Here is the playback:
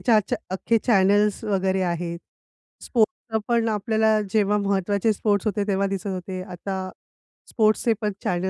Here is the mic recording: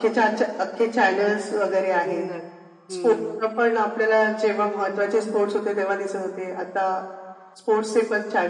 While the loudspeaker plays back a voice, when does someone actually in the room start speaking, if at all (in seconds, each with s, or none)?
2.0 s